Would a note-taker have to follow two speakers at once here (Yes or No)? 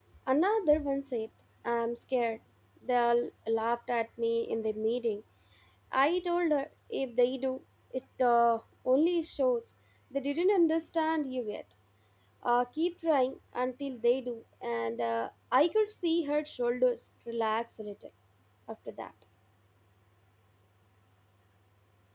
No